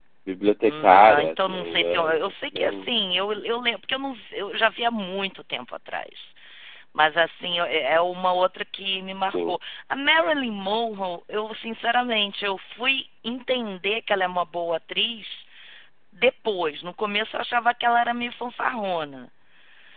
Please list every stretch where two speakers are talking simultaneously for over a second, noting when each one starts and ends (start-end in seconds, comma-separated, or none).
0.6-2.8